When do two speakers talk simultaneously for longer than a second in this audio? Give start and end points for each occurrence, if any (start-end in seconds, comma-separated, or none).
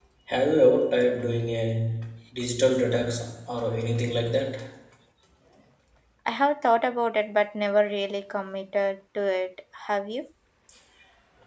none